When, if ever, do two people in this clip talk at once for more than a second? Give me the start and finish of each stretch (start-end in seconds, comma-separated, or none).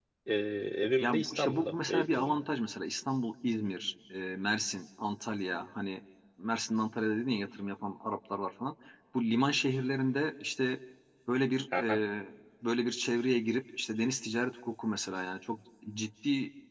1.0-2.4